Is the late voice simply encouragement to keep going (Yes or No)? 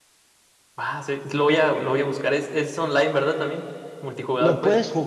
No